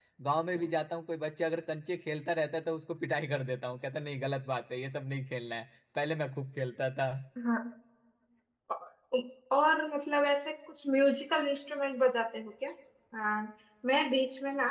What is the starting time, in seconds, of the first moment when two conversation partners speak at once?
none

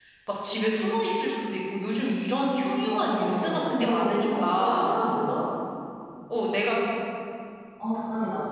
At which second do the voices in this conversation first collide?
2.8 s

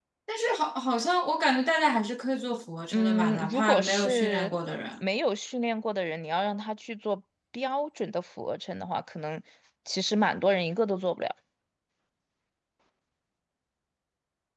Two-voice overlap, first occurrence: 2.9 s

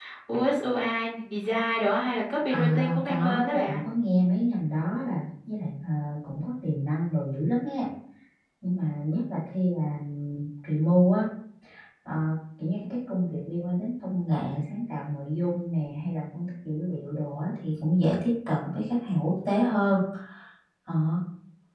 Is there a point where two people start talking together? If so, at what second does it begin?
2.5 s

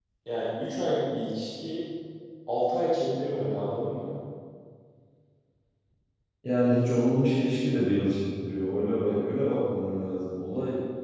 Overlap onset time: none

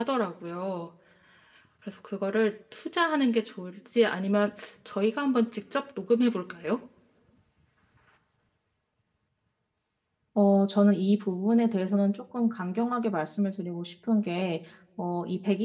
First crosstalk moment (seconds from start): none

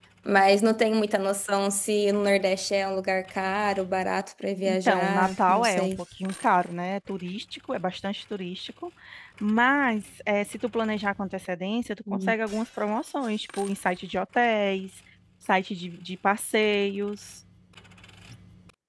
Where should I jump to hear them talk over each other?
4.7 s

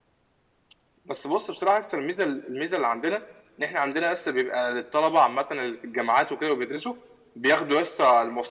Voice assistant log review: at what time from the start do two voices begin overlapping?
none

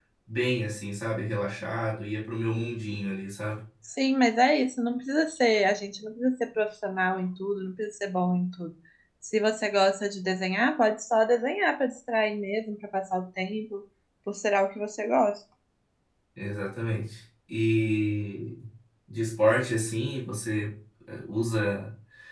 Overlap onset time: none

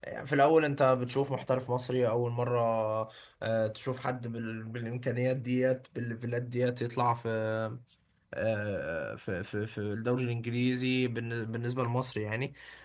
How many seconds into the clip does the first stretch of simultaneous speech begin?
none

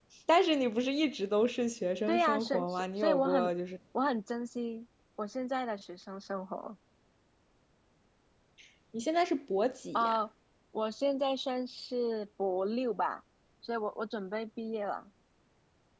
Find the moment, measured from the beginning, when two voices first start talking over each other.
2.1 s

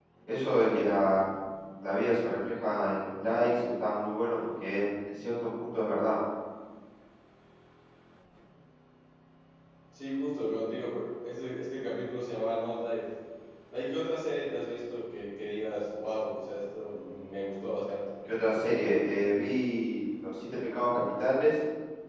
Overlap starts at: none

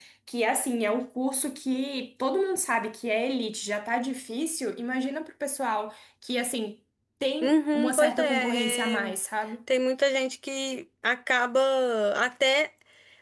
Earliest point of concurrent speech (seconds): 7.4 s

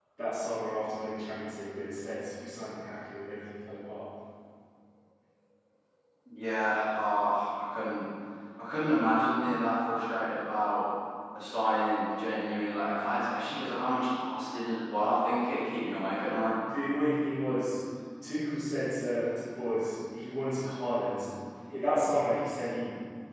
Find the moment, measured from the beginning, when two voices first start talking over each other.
none

